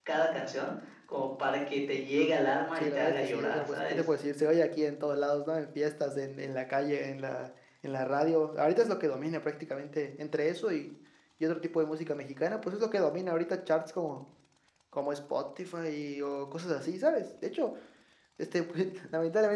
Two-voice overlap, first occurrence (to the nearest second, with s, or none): 3 s